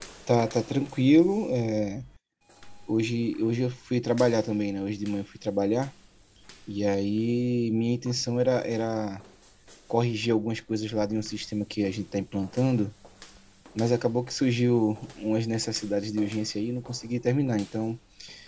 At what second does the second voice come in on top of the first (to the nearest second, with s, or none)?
none